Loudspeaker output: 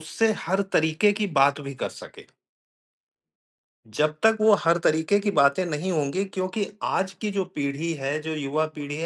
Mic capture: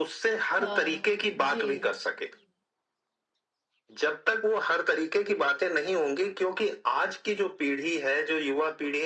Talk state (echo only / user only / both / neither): both